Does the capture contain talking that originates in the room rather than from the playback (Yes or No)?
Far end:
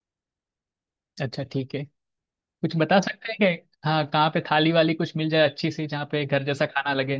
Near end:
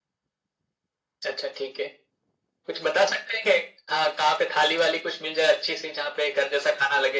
No